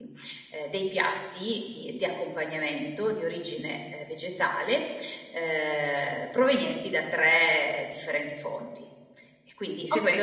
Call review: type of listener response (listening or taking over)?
taking over